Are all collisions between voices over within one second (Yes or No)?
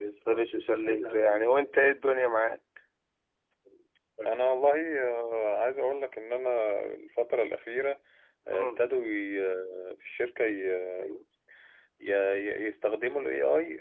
Yes